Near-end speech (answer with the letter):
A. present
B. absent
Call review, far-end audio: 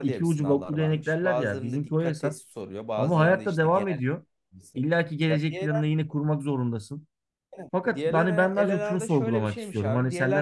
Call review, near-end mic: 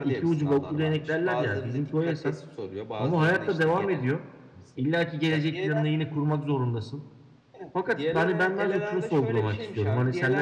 B